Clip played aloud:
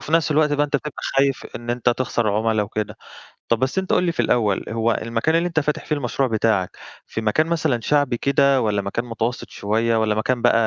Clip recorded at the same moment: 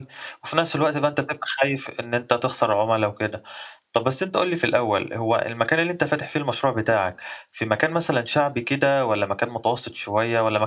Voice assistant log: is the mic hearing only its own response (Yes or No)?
Yes